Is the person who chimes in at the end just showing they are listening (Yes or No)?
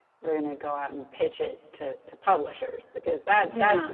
Yes